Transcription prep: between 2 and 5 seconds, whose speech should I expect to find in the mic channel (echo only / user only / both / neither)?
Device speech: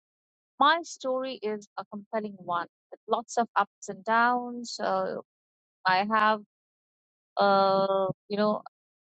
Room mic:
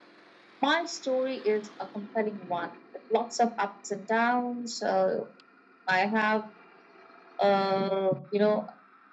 echo only